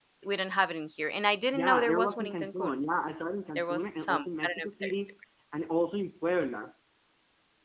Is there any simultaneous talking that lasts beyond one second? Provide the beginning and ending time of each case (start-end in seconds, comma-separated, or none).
1.5-2.8, 3.6-4.9